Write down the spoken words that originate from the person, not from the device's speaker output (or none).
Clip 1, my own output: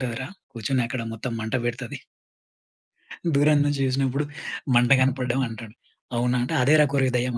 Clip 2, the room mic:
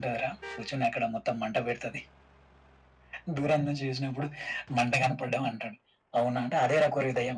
none